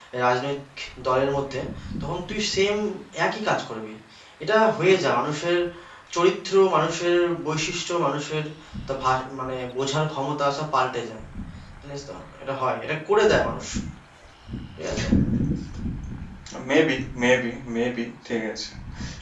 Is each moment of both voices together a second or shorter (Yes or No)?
Yes